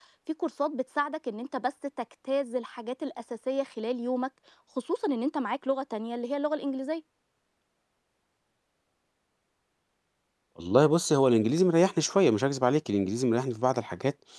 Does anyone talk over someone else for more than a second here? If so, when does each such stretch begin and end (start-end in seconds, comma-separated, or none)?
none